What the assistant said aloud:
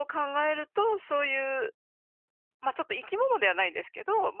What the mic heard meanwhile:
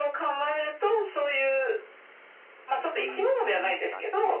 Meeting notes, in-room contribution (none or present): present